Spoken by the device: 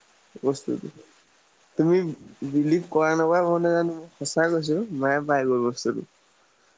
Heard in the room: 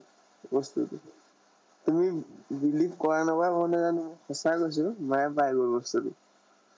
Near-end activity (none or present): none